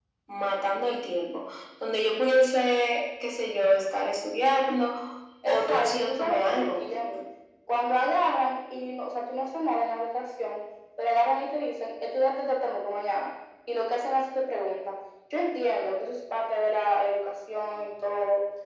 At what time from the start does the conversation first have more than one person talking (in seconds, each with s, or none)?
5.5 s